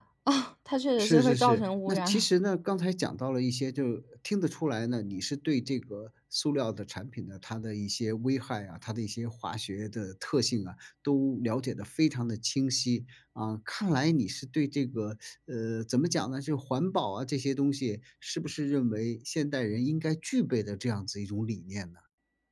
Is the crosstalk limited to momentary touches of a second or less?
No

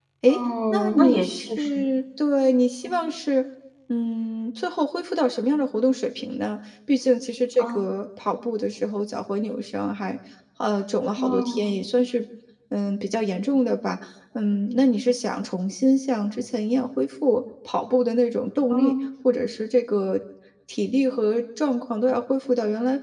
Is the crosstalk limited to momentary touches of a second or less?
No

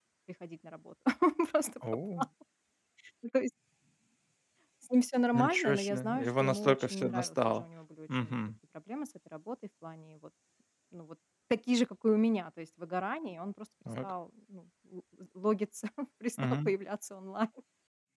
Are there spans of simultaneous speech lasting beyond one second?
Yes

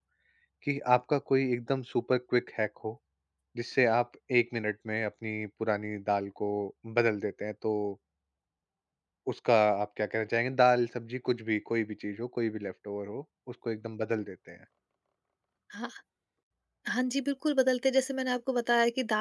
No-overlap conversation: Yes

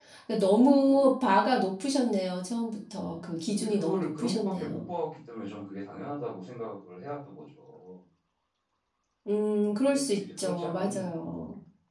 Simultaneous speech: Yes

